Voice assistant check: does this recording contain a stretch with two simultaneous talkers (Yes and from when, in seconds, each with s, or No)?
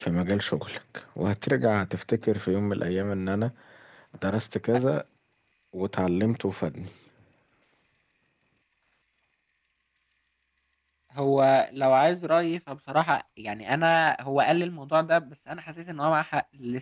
No